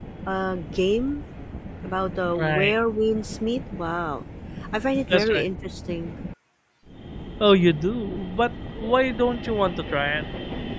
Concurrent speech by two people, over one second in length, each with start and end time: none

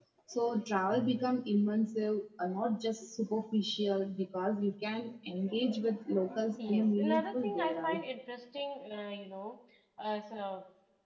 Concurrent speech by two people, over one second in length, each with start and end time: 6.7-8.0

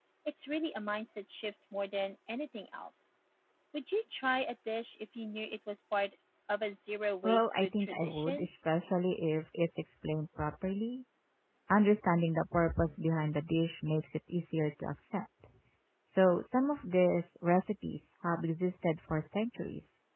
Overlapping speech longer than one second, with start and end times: 7.2-8.5

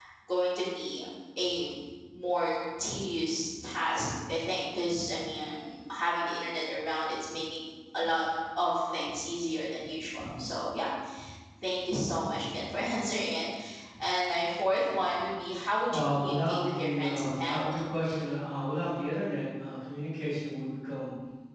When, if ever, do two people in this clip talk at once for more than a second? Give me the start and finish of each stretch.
15.9-17.8

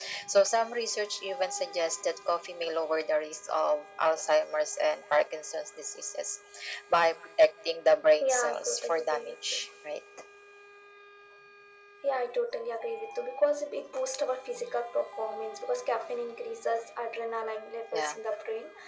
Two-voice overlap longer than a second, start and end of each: 8.2-9.6

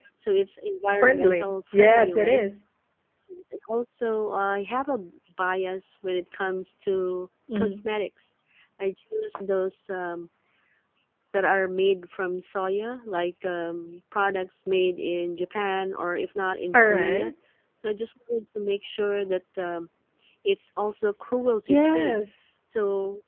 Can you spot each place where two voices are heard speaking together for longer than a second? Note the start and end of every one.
1.0-2.4

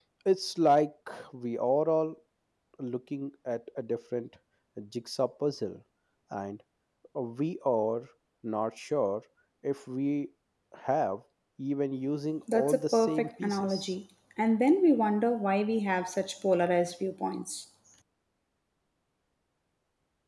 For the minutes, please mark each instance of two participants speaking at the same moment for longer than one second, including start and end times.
12.5-13.9

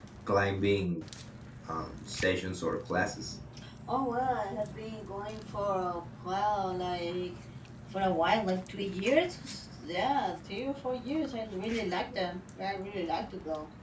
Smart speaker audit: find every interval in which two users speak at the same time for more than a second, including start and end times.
none

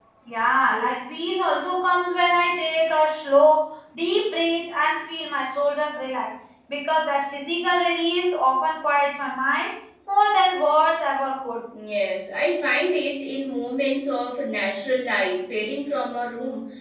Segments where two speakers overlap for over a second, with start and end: none

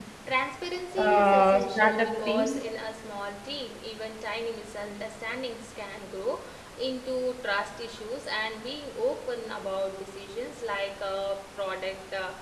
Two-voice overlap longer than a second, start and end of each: 1.0-2.5

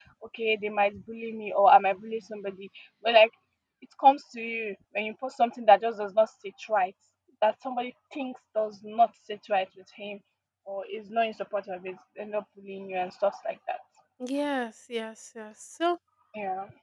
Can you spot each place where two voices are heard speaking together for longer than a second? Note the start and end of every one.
none

